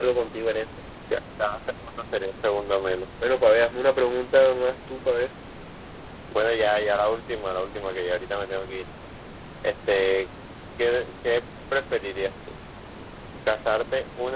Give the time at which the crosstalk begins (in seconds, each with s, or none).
none